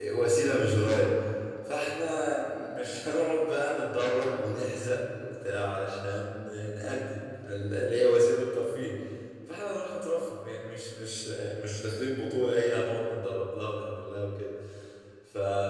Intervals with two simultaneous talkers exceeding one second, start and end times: none

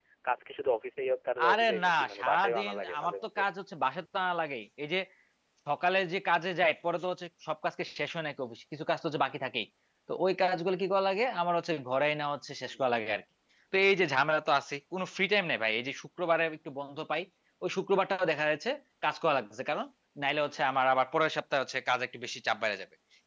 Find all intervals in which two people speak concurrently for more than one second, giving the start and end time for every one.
1.5-3.4

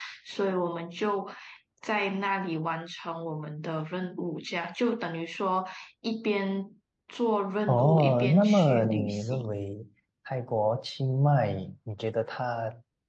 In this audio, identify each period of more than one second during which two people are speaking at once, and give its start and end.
7.7-9.6

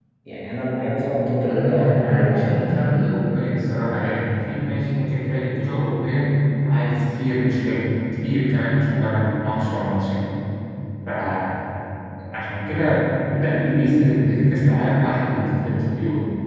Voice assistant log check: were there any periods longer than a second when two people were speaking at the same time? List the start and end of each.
1.4-2.6

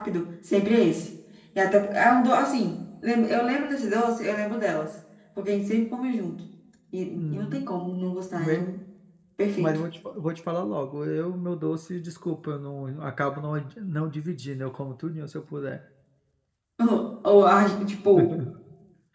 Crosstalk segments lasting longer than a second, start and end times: none

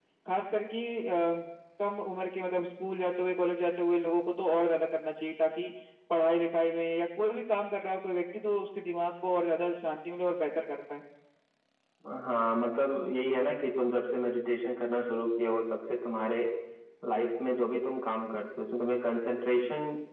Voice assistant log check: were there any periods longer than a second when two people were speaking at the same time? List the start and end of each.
none

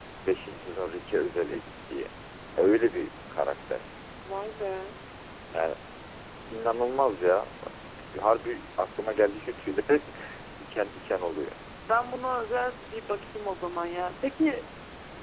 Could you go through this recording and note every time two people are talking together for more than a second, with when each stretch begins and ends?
none

